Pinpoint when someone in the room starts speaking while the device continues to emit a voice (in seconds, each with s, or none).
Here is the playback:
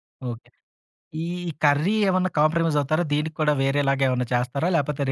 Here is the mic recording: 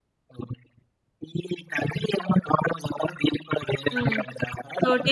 3.9 s